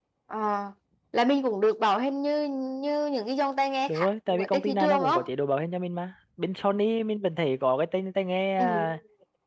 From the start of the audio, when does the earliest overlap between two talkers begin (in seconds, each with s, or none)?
3.9 s